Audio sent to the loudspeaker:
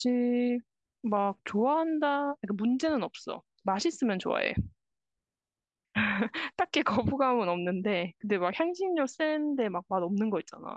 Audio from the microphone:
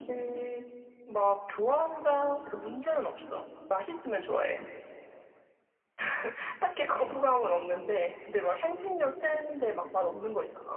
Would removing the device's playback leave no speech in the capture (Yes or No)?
Yes